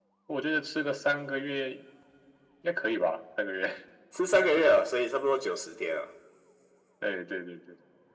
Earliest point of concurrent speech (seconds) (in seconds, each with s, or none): none